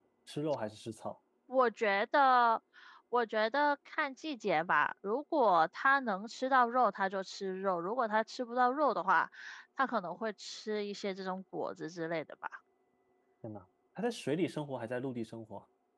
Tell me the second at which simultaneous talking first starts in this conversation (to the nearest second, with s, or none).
none